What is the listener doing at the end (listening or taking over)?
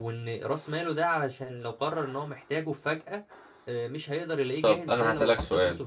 taking over